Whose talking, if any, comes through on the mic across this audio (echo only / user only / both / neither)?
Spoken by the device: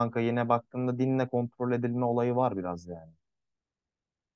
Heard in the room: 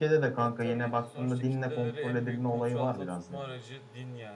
both